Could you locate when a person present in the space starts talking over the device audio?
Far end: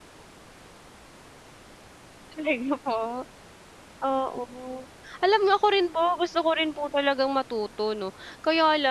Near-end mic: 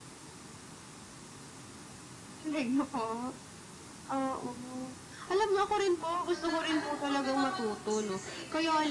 6 s

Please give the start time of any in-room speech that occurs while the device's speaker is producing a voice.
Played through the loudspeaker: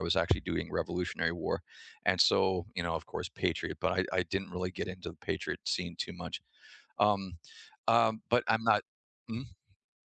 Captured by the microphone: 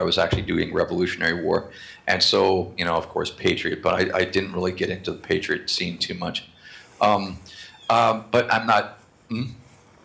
none

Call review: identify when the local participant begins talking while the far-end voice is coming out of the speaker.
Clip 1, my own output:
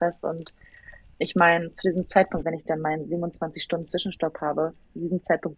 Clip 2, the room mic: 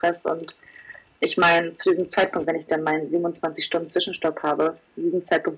none

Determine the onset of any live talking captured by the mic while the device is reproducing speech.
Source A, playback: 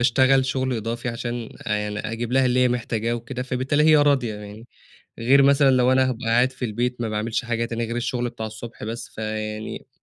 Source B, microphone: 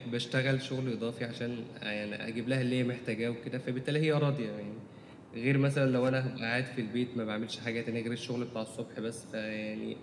none

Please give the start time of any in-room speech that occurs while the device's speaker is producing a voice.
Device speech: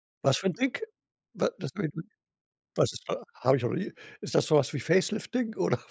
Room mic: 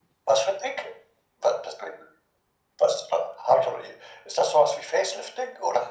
none

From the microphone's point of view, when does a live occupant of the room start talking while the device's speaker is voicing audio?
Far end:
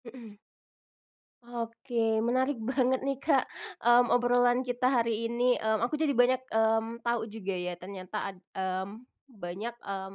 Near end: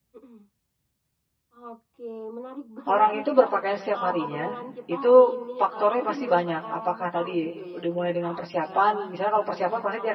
3 s

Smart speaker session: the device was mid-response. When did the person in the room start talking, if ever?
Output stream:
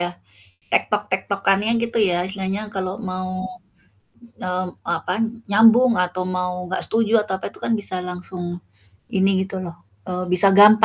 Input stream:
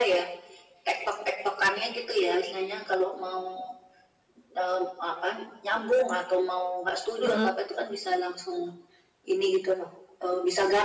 7 s

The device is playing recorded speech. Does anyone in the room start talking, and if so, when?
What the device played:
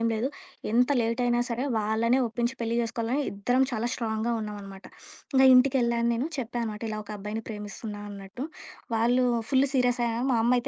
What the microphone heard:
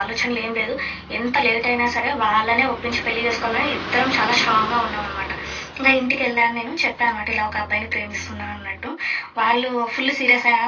none

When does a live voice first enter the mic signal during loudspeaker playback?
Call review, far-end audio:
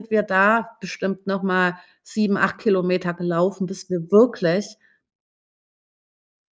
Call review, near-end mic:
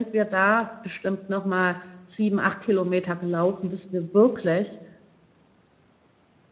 none

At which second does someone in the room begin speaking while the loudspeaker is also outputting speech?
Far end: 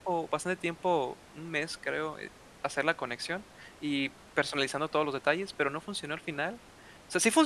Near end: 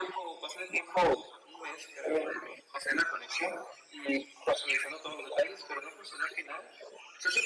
none

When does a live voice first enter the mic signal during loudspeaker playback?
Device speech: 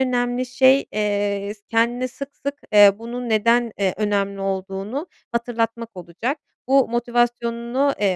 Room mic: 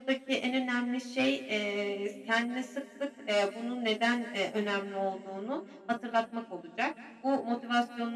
none

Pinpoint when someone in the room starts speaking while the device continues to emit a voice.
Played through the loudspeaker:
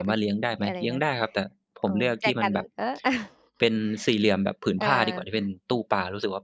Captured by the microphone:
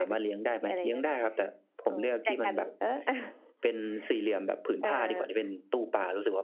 none

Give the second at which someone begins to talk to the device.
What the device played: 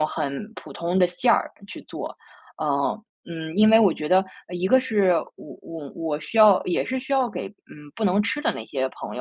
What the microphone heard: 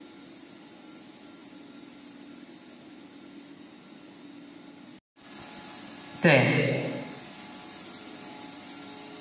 6 s

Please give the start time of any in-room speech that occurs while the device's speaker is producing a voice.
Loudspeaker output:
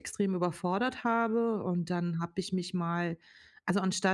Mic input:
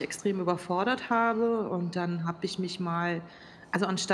none

